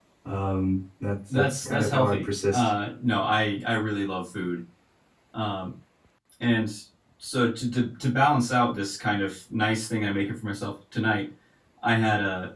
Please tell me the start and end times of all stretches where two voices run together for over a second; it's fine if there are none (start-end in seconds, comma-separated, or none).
1.3-2.7